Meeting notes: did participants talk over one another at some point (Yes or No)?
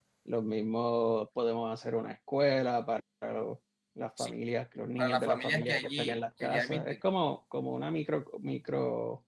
Yes